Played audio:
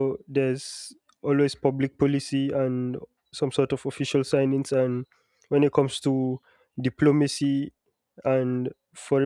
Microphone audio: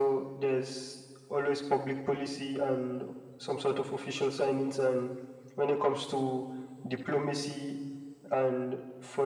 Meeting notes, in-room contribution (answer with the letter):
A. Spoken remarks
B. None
B